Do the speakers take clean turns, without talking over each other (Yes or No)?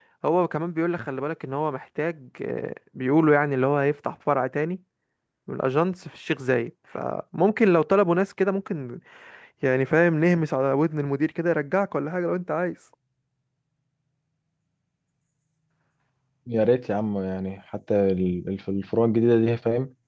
Yes